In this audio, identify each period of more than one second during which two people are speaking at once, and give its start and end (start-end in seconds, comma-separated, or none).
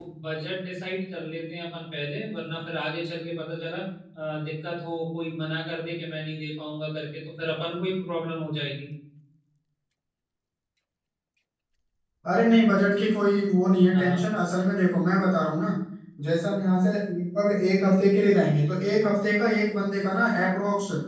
none